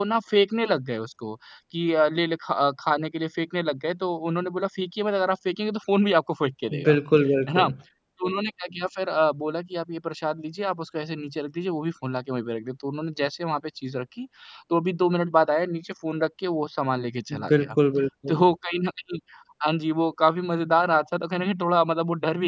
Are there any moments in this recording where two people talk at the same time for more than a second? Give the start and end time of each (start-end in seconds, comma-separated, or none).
none